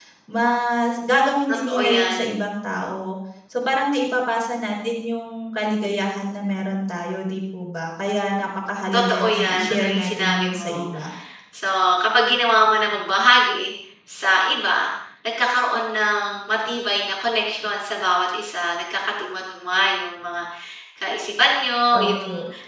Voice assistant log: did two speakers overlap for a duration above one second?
Yes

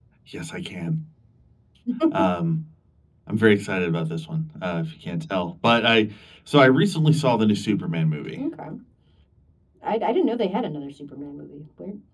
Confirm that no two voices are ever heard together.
Yes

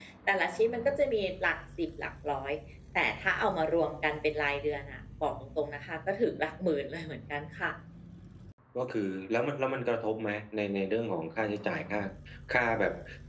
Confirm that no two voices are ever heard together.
Yes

